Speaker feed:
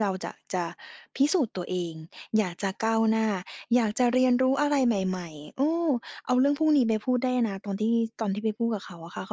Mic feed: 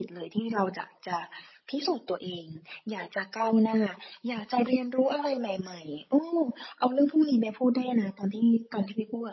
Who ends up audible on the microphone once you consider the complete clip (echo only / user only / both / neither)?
echo only